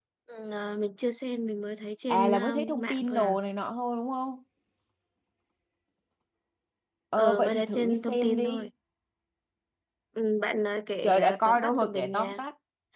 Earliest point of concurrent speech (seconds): 2.1 s

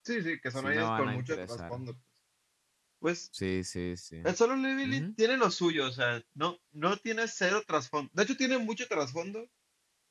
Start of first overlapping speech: 0.6 s

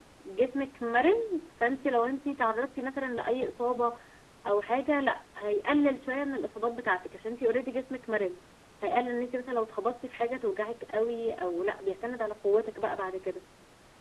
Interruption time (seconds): none

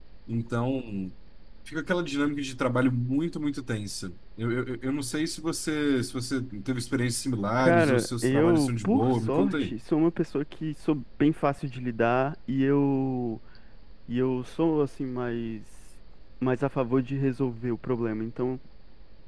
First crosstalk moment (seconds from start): 7.6 s

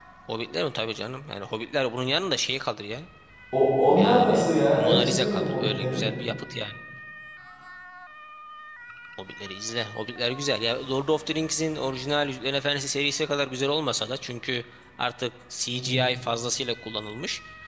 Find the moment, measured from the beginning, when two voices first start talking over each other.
4.0 s

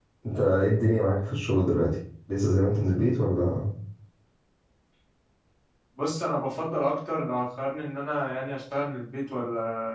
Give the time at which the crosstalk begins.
none

